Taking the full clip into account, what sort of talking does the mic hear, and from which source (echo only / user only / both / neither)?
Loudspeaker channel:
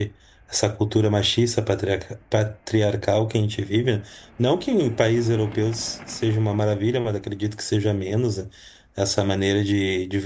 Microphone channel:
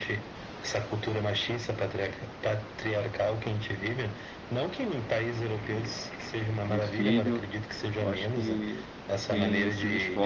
both